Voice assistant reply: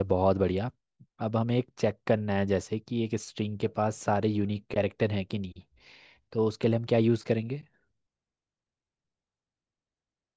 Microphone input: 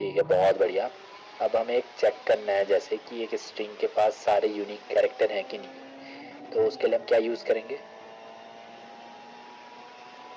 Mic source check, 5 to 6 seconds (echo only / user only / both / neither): echo only